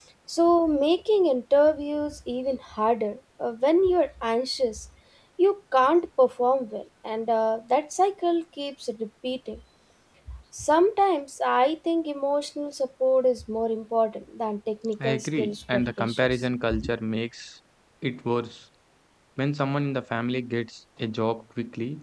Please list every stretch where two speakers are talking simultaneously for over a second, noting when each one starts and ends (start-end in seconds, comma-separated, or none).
15.0-16.4